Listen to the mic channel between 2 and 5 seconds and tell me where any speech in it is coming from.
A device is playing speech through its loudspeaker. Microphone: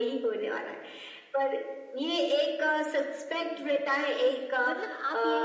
both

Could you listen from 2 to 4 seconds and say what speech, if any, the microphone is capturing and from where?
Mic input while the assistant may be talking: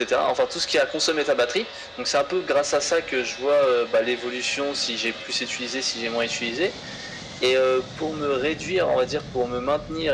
echo only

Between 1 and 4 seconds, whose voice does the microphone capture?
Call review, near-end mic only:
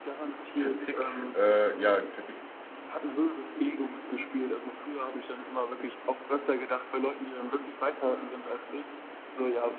both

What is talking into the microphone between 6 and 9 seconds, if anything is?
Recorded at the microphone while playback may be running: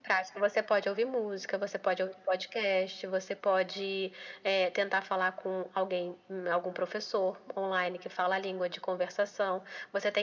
echo only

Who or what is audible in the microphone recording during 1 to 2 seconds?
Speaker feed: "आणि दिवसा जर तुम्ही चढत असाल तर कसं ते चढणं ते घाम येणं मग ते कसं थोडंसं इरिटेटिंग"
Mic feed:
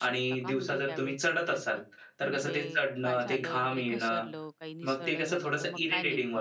both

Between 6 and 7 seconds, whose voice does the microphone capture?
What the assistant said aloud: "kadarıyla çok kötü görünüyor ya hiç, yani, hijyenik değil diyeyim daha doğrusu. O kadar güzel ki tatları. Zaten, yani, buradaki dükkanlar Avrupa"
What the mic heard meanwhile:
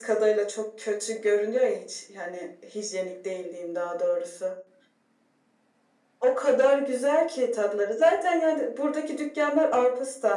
echo only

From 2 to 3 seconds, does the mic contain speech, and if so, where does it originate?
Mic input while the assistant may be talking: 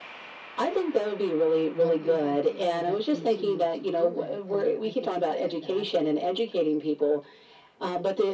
both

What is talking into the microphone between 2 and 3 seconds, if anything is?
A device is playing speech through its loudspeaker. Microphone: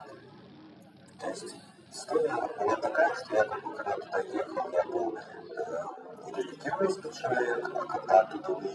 echo only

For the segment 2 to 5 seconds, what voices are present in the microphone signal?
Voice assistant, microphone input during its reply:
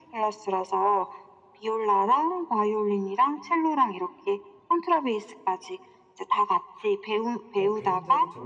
echo only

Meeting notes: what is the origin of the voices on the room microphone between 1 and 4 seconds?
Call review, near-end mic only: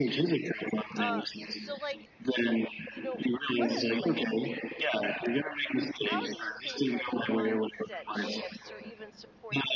both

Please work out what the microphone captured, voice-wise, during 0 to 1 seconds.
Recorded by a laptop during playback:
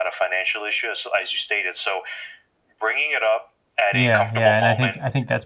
echo only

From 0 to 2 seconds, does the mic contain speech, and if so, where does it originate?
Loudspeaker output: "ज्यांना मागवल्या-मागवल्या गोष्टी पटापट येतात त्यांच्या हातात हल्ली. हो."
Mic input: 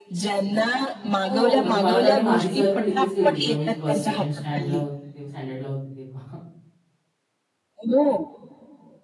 both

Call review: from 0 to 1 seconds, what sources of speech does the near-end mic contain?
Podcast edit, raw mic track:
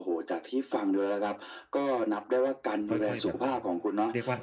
echo only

